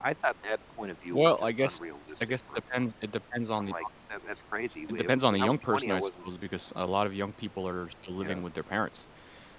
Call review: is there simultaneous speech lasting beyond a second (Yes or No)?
Yes